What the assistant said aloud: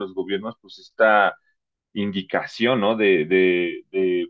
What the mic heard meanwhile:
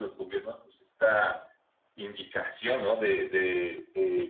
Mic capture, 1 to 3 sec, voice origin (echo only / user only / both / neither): echo only